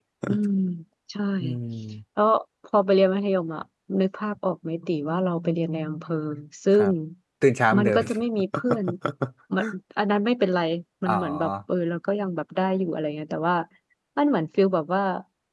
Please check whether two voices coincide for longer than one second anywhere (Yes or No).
No